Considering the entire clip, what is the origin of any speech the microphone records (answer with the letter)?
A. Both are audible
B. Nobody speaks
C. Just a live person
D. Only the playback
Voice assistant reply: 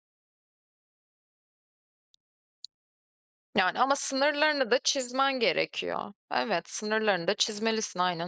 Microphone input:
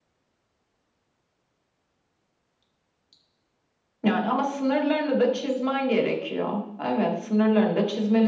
D